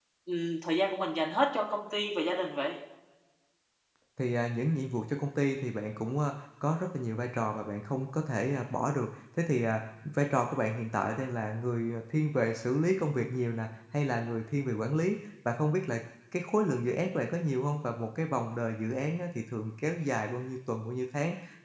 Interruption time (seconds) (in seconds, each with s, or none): none